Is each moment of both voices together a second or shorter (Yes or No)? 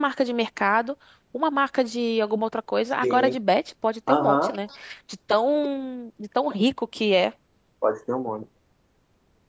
Yes